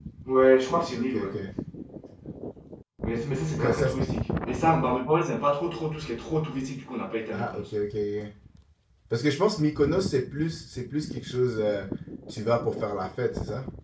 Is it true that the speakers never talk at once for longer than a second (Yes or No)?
Yes